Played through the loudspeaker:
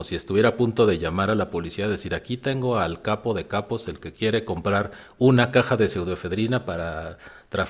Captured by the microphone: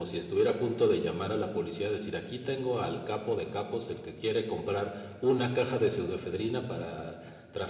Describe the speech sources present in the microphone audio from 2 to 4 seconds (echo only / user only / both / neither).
echo only